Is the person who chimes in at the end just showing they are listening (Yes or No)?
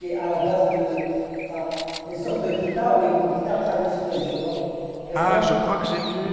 No